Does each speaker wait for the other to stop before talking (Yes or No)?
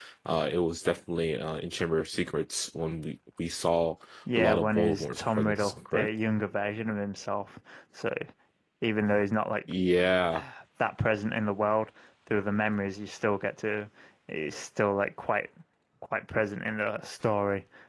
No